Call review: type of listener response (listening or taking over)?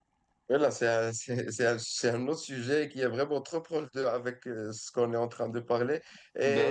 listening